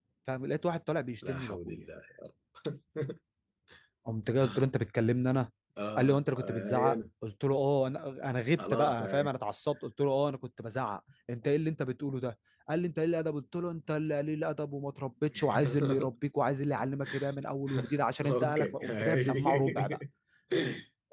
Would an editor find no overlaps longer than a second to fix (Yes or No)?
No